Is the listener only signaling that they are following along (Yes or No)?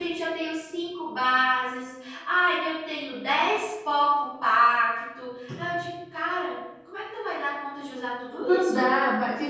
No